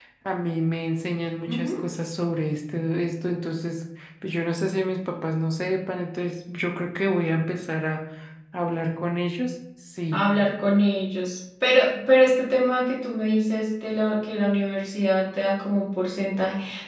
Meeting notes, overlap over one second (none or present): none